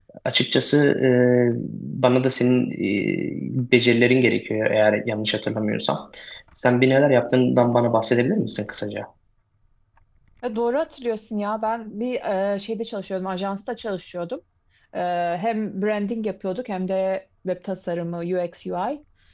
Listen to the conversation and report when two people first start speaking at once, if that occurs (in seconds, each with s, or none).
none